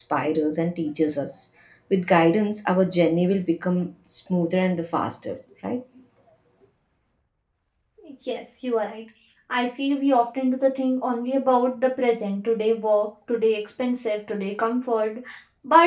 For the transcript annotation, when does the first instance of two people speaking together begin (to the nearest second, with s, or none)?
none